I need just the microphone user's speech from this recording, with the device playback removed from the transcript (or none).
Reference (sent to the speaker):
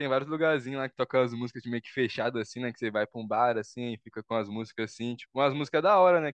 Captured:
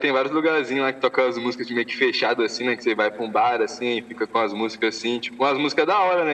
none